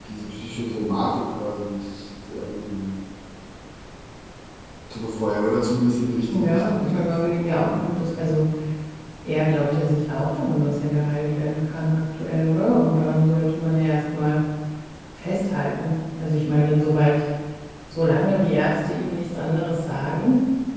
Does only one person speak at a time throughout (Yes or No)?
No